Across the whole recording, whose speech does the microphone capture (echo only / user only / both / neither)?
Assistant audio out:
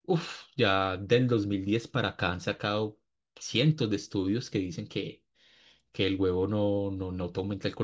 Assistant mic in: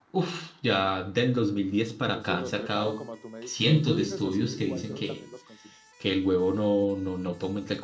both